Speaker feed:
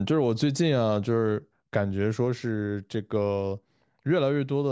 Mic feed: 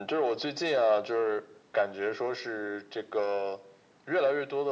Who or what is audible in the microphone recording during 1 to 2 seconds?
echo only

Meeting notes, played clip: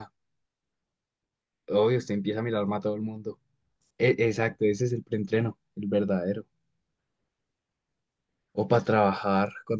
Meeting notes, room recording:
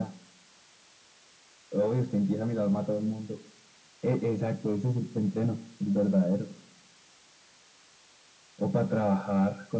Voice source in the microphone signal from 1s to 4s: echo only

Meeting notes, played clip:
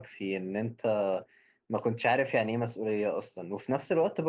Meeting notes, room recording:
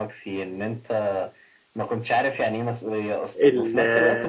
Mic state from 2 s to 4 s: both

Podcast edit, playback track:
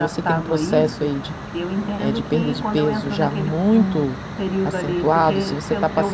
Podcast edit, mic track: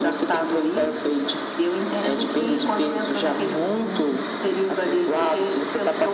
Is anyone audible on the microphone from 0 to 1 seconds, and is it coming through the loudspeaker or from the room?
echo only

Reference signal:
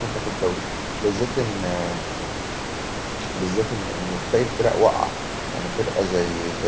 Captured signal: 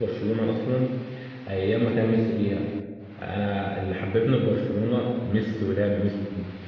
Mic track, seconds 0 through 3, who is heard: user only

